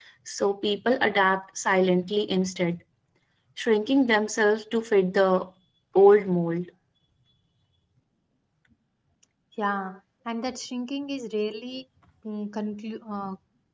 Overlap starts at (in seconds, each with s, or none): none